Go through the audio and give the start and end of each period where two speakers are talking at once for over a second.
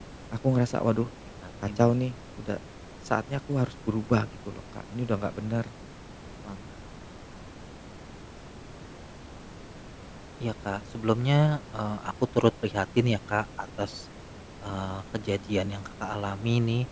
none

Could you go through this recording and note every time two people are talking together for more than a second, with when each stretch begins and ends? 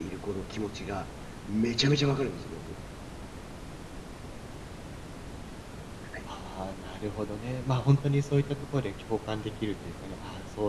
none

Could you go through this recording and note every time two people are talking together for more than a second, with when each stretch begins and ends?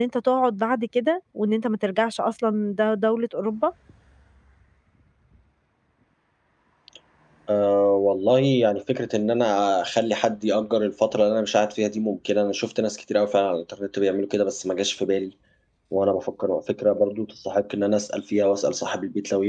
none

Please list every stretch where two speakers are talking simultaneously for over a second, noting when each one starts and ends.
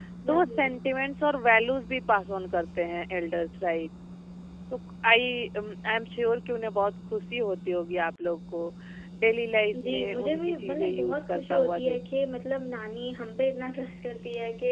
9.8-12.3

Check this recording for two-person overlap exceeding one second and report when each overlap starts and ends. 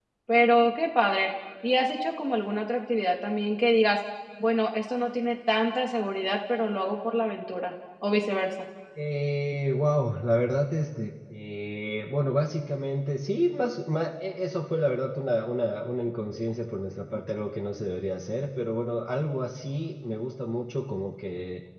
none

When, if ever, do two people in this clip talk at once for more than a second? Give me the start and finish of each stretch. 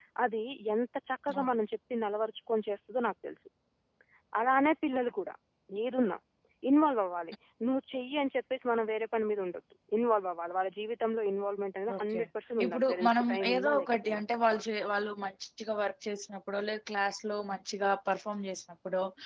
12.6-14.2

